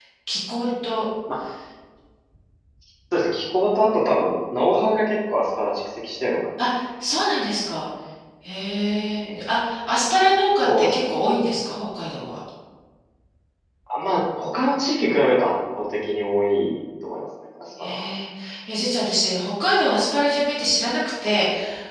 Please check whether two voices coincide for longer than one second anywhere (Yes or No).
No